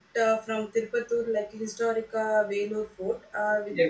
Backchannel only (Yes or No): Yes